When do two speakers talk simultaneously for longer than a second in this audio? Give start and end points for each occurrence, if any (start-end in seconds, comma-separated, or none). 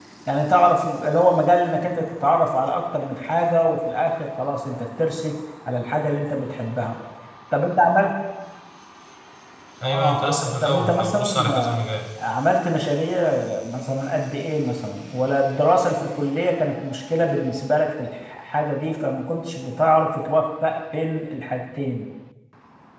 9.8-11.5